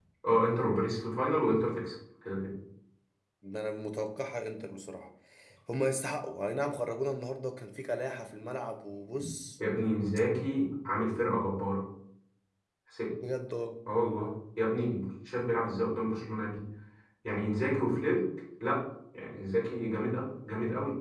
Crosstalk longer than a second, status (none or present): none